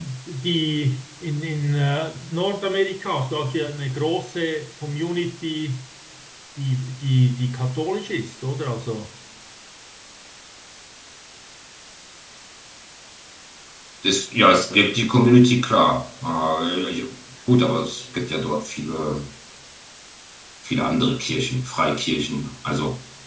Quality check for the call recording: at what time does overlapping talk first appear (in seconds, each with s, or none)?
none